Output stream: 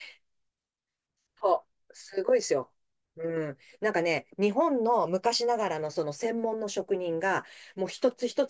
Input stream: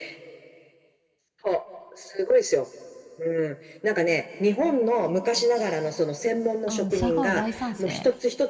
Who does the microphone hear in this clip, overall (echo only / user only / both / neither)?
both